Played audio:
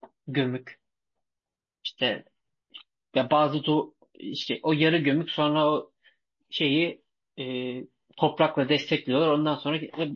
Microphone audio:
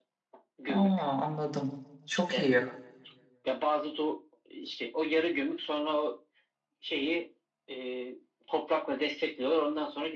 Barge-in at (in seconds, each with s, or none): 0.7 s